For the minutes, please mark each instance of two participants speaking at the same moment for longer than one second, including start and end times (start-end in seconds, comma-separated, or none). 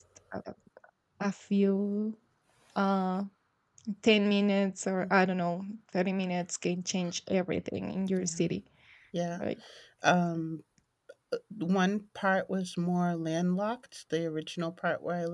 none